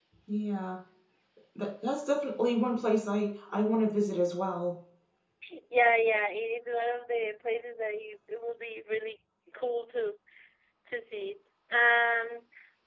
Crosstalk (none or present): none